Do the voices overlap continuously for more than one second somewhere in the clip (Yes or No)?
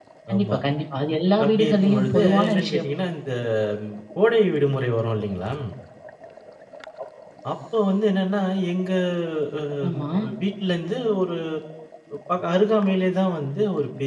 Yes